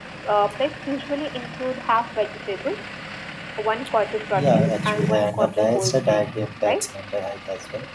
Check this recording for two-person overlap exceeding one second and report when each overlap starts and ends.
4.3-6.9

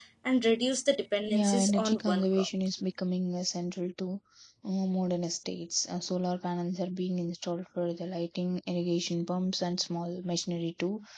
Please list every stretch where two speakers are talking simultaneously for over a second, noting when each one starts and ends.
1.3-2.5

